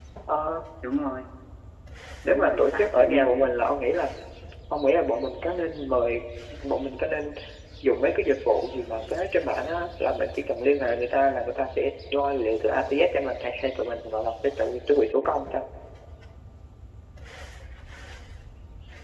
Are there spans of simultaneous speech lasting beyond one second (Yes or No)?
Yes